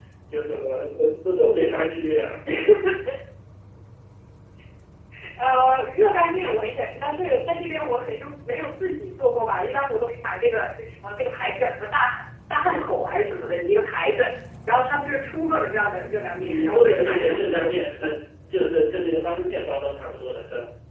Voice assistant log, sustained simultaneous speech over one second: present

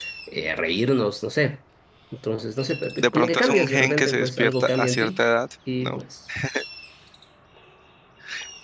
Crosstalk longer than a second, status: present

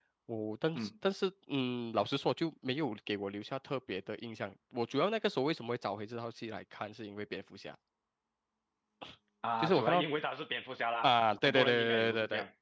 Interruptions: present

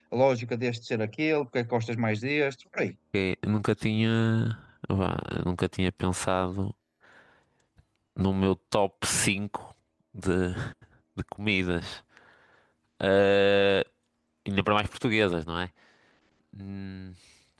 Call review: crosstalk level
none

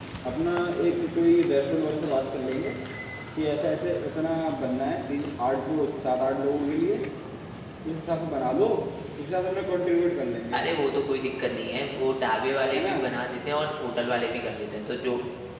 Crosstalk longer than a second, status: none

